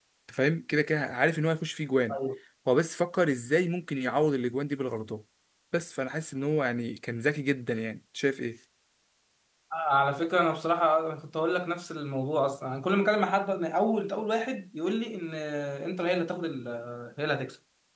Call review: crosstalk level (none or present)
none